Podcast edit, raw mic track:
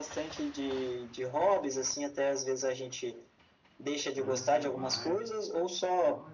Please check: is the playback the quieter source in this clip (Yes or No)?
No